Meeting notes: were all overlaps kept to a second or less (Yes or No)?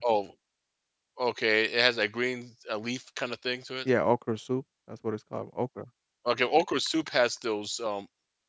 Yes